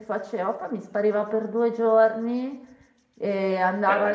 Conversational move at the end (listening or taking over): listening